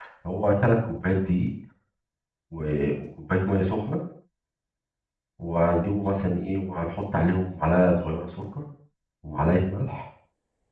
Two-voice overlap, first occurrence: none

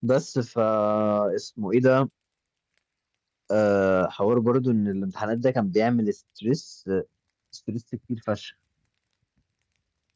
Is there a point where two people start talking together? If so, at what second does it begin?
none

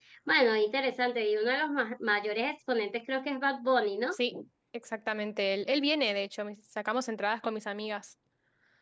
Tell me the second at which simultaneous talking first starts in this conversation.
none

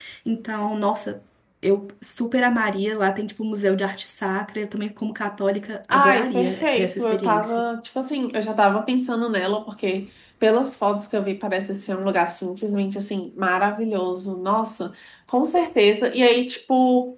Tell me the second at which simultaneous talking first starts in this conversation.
5.9 s

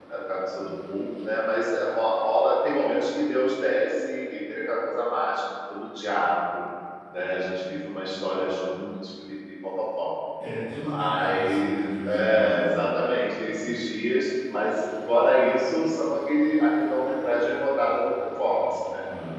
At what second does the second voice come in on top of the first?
10.8 s

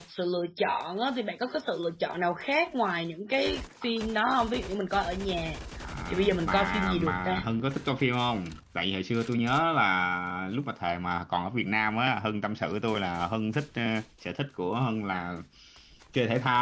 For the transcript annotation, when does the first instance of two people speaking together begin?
6.1 s

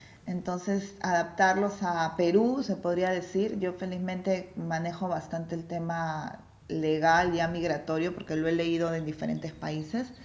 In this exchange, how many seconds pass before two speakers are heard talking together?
none

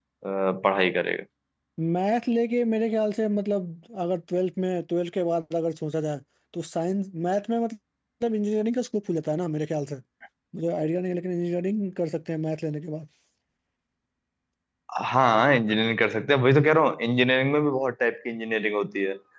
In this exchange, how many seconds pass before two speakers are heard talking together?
none

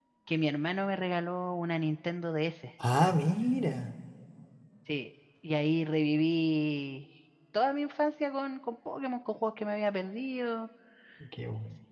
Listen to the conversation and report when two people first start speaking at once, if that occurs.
none

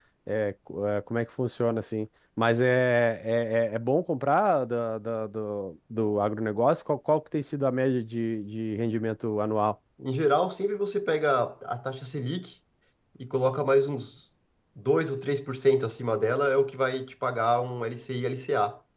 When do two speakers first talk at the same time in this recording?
none

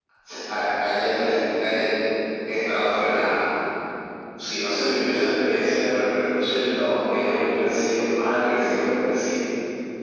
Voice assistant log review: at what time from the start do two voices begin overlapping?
none

